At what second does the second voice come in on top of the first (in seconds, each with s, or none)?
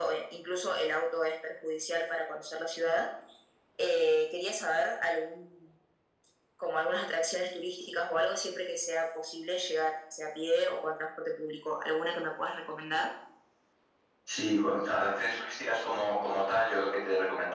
none